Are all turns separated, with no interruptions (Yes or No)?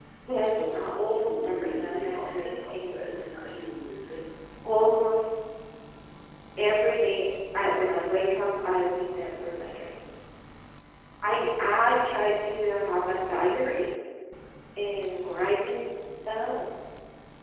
No